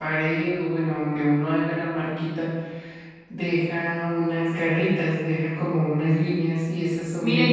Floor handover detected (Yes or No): Yes